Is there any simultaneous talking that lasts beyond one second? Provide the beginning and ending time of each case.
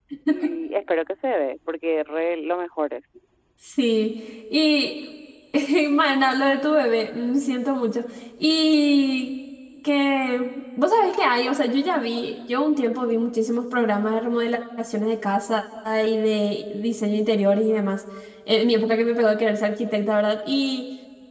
none

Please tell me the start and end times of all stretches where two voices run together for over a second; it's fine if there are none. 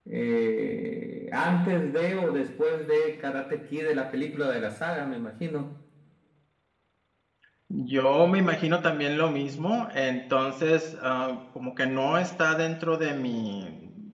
none

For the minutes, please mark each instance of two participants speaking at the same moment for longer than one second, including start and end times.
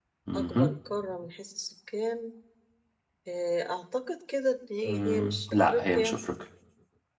4.8-6.2

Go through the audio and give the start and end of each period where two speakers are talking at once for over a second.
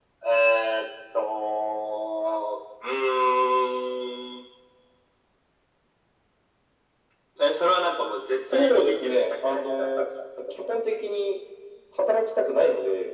8.5-10.1

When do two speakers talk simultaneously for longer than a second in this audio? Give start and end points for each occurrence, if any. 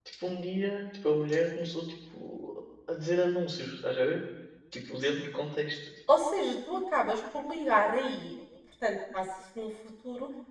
none

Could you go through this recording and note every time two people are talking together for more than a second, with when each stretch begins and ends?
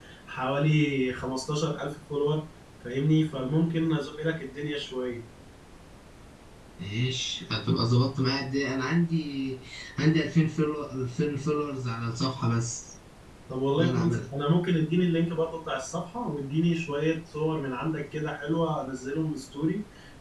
none

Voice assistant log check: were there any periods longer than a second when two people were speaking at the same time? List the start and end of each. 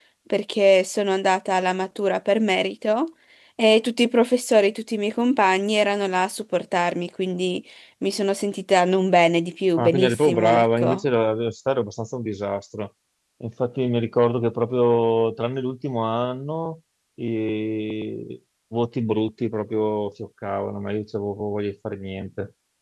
9.8-11.0

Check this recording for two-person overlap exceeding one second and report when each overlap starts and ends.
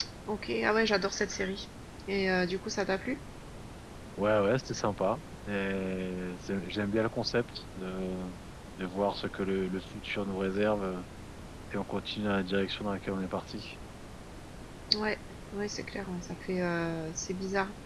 none

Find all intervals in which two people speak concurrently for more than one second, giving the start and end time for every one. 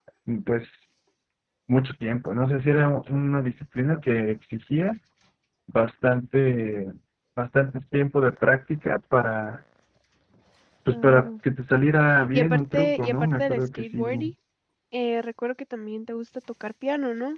12.3-14.1

